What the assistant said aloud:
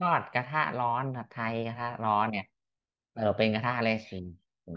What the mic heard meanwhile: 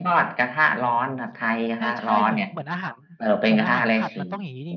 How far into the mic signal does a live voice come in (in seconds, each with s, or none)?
0.8 s